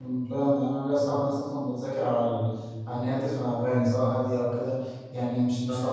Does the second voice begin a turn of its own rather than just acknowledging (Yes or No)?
No